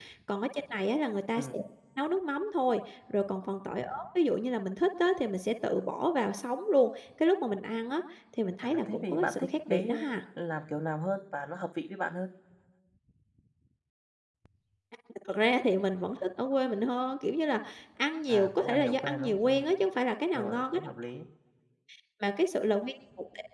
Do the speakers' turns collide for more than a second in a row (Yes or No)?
Yes